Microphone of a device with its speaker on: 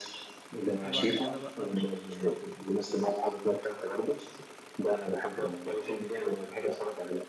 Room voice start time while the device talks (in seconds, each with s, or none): 0.8 s